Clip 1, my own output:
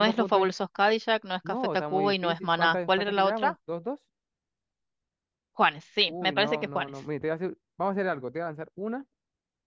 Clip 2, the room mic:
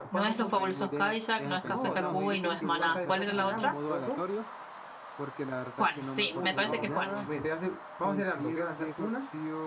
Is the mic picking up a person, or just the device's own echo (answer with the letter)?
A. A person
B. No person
A